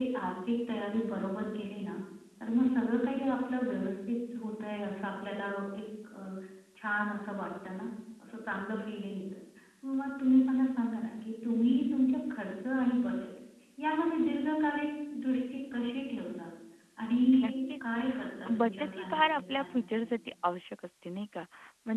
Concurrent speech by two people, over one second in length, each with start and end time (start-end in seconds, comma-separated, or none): 18.6-20.2